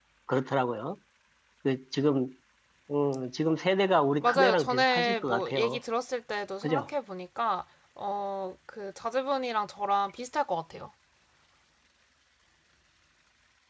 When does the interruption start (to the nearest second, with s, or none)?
4 s